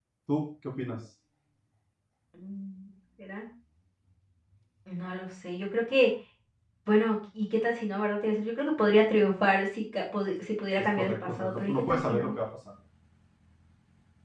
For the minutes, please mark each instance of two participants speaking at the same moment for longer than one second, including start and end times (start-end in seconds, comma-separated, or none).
10.9-12.3